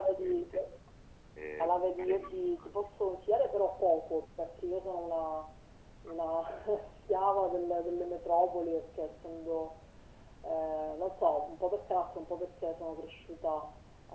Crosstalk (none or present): present